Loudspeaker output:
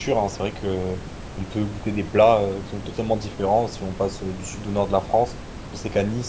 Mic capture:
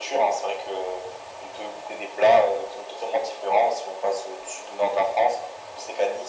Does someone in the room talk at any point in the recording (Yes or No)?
No